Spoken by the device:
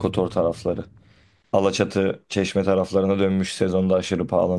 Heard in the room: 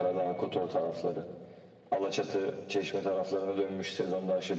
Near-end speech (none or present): none